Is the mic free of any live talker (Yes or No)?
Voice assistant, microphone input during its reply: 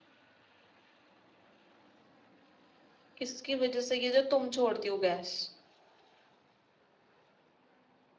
No